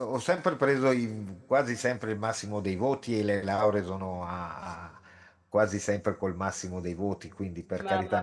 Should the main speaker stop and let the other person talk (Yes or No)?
Yes